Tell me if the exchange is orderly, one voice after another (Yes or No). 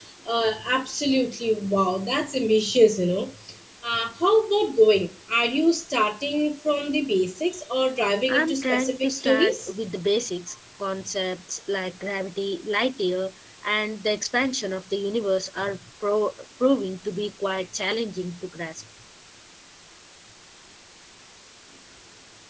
No